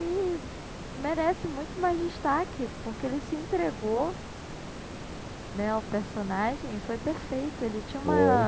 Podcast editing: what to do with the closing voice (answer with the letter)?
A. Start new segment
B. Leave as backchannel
B